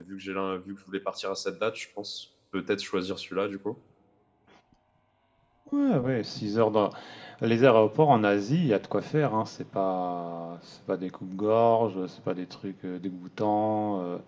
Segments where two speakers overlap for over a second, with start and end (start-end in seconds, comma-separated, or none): none